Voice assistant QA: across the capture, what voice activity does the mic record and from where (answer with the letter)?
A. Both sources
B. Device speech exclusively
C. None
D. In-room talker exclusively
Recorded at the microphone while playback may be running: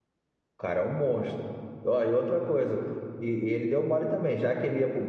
D